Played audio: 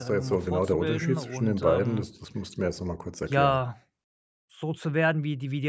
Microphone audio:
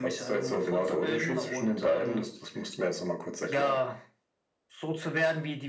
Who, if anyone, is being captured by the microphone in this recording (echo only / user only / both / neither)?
echo only